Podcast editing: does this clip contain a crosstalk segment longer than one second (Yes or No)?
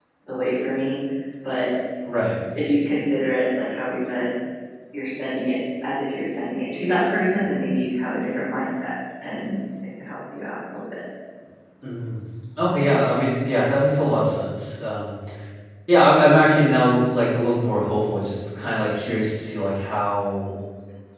No